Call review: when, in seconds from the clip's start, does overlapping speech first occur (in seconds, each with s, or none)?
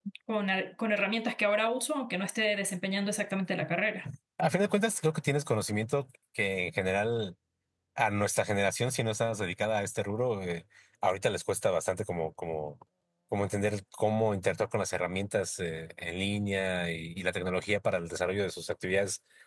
none